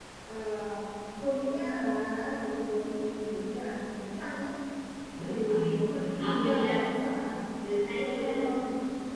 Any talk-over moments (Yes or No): Yes